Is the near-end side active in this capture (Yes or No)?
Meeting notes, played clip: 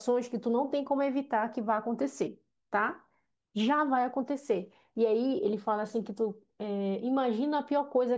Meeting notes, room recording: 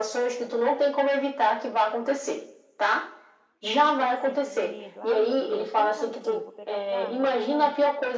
Yes